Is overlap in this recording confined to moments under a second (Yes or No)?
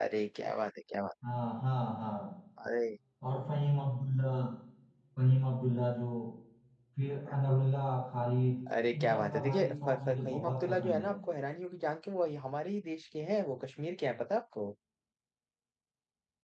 No